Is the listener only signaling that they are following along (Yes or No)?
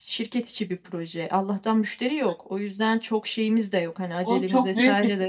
No